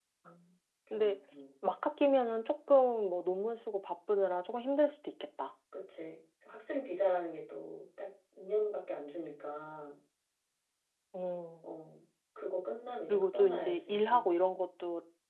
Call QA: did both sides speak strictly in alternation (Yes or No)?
No